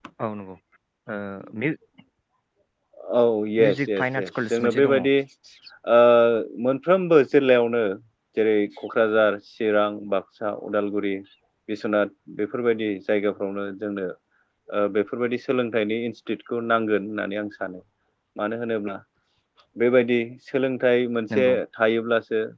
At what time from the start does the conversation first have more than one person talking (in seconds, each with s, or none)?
3.6 s